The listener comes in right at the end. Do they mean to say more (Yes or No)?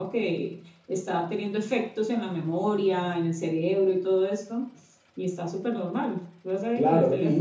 Yes